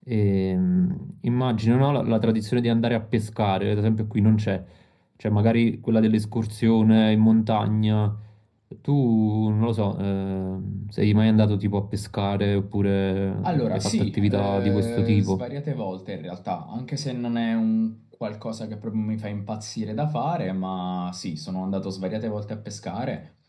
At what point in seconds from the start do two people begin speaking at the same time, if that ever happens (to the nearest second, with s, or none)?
13 s